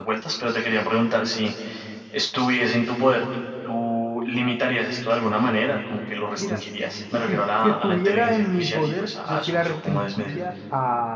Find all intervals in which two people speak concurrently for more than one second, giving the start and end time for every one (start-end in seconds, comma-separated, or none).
7.1-10.4